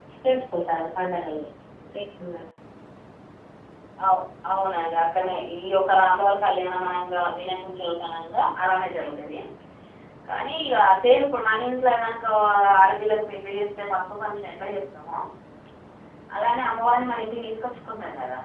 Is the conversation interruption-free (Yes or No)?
Yes